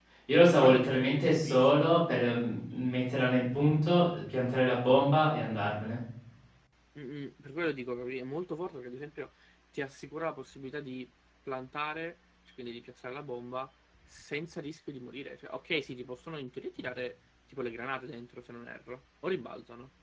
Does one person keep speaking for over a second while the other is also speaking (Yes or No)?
Yes